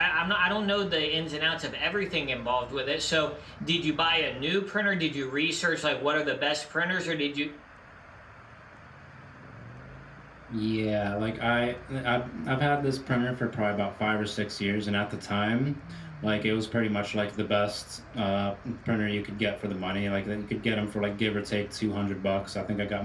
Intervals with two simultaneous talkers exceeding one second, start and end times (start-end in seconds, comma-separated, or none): none